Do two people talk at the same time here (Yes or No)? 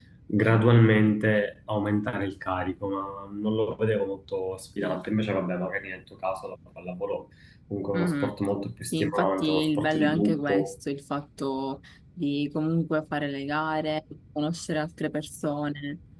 Yes